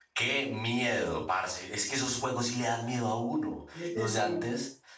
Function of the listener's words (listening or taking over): listening